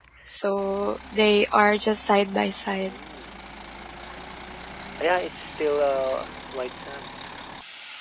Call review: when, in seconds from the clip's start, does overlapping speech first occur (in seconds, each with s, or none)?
none